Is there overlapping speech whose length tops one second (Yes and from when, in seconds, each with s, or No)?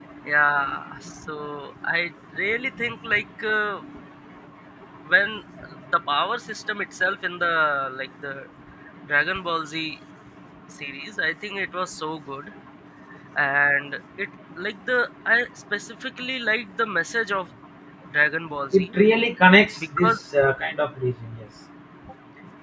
No